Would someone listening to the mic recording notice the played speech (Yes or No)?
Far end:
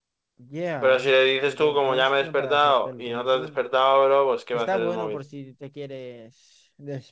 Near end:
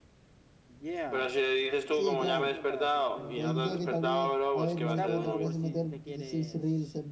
Yes